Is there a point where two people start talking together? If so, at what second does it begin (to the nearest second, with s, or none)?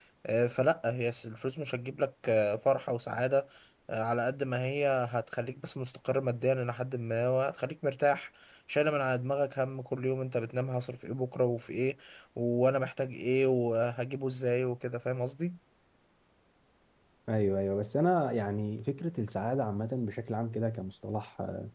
none